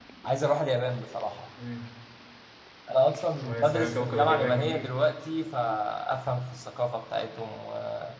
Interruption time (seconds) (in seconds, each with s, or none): 3.4 s